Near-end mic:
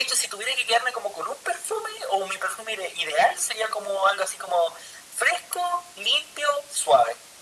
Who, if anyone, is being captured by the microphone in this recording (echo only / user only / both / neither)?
echo only